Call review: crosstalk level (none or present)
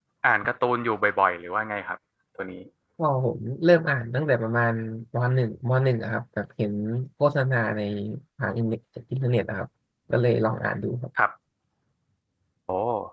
none